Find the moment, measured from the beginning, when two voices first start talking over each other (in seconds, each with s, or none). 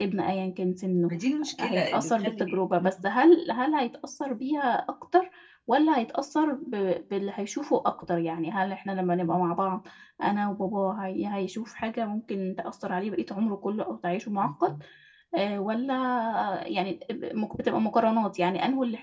1.6 s